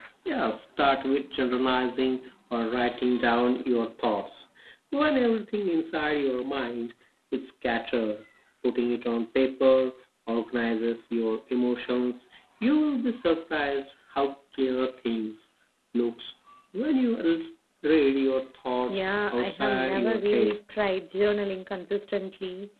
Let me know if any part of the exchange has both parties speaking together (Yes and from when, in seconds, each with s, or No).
Yes, from 18.9 s